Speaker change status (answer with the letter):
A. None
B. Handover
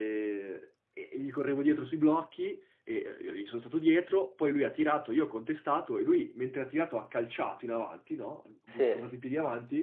A